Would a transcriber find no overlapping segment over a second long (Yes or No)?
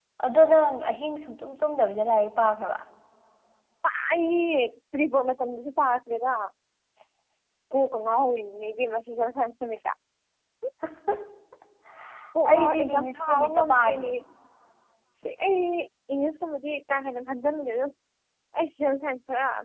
No